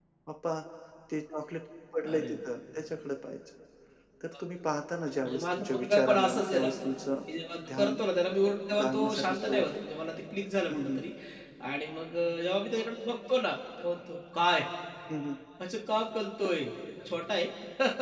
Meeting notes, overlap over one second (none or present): present